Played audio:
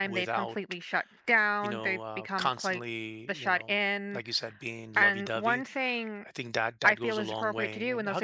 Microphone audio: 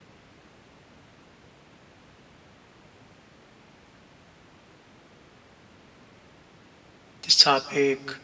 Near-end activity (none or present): present